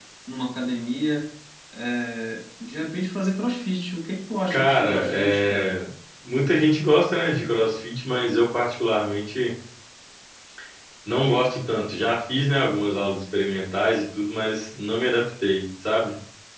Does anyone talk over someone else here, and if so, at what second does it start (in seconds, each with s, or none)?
4.5 s